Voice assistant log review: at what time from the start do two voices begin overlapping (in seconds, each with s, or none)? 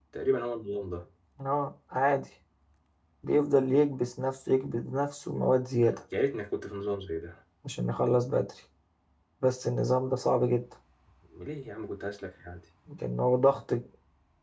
none